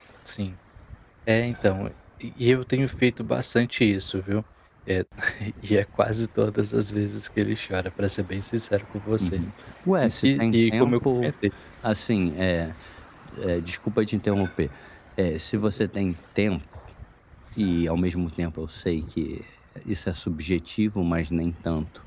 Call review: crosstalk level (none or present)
present